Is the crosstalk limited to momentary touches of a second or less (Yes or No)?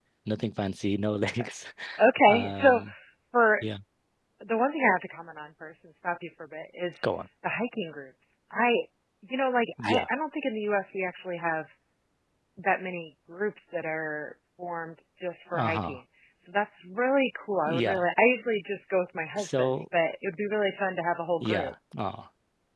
Yes